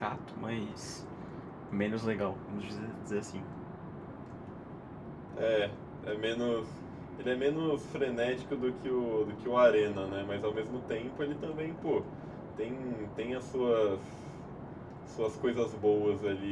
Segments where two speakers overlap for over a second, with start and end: none

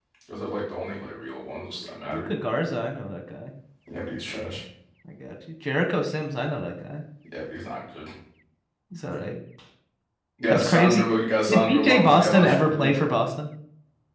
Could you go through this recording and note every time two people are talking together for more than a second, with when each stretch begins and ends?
11.5-12.9

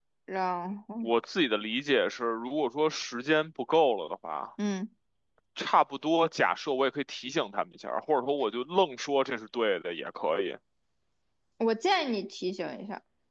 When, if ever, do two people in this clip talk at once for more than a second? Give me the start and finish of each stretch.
none

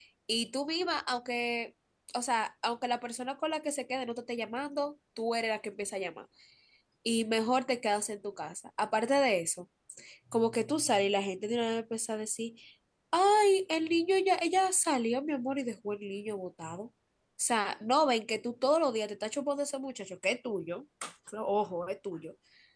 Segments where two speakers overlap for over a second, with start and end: none

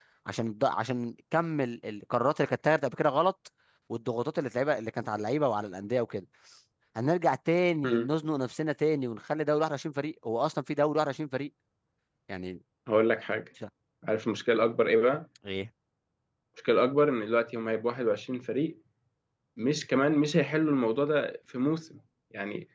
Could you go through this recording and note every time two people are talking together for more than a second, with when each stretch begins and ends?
none

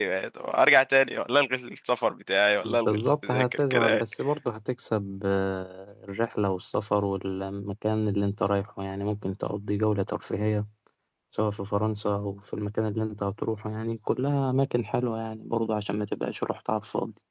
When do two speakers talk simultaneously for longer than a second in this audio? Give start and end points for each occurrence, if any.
2.6-4.0

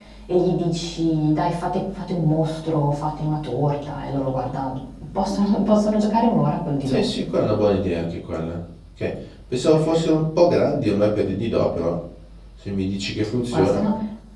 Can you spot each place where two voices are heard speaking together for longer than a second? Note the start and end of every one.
none

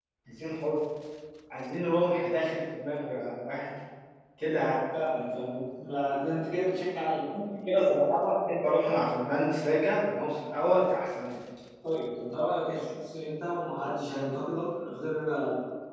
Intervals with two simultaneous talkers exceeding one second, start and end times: none

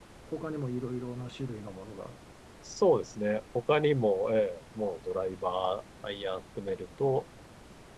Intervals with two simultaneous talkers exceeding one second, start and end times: none

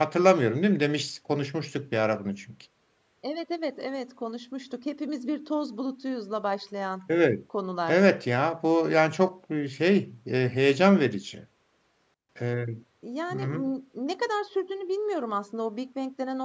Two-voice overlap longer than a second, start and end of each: none

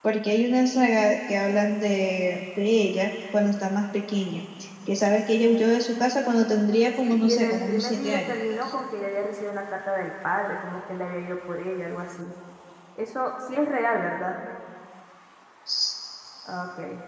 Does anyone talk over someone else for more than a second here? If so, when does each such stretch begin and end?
7.0-8.3

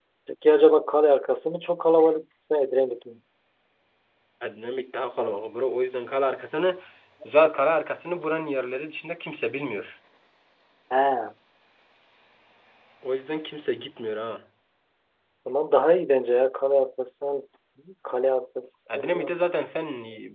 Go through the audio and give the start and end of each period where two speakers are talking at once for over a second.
none

